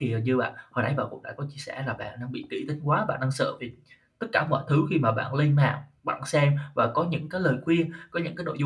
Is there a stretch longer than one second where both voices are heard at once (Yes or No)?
No